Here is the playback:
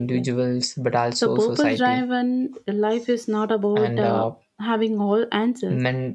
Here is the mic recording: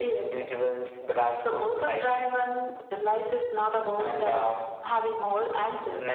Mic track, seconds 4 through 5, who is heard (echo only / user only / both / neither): echo only